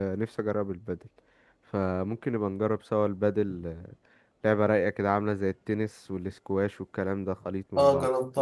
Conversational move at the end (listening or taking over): taking over